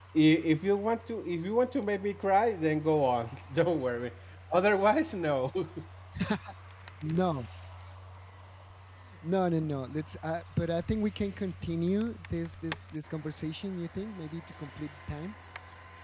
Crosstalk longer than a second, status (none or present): none